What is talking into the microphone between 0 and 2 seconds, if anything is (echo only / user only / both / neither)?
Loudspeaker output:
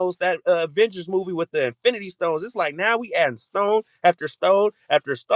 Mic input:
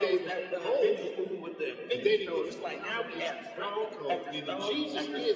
both